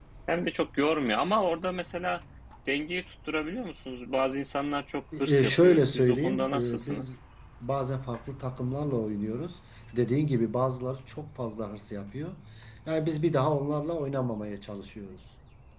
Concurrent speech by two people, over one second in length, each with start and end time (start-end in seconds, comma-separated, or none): 5.2-7.1